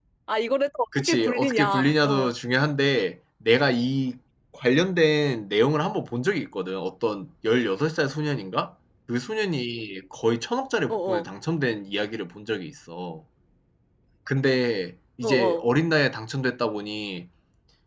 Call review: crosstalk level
present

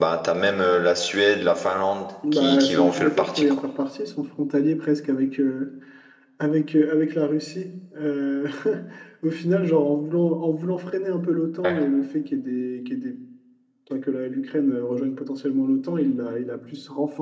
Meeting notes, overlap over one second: present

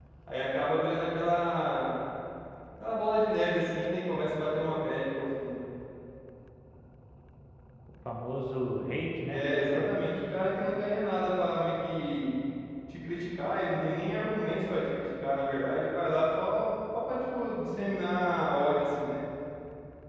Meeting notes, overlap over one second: none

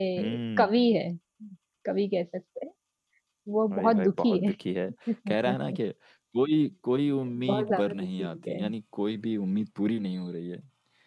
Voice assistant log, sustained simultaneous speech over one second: present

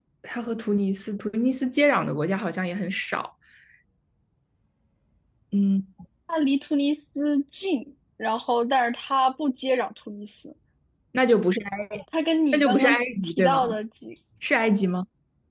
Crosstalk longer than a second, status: present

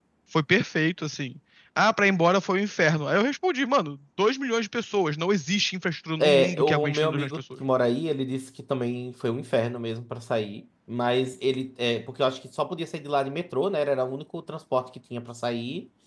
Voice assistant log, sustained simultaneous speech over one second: present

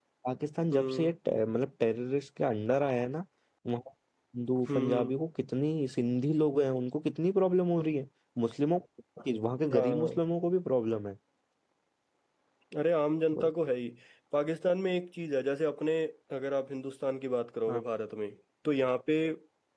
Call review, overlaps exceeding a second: none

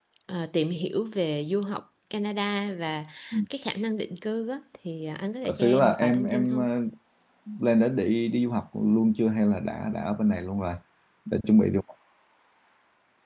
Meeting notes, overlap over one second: present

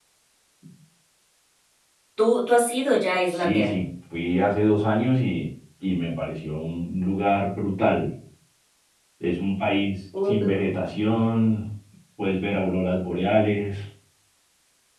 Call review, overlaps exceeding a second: none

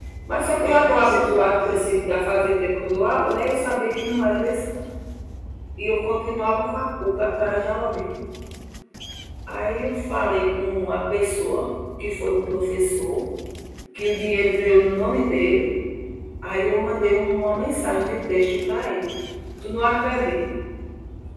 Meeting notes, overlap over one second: present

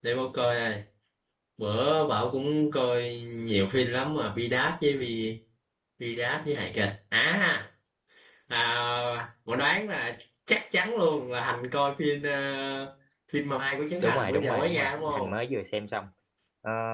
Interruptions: present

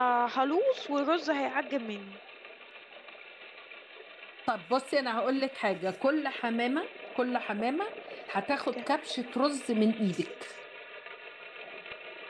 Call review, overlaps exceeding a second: none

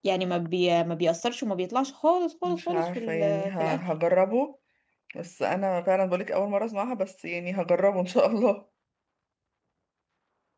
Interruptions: present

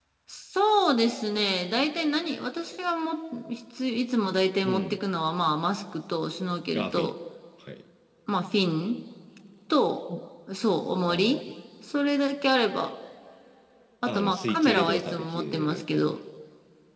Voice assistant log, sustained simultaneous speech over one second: present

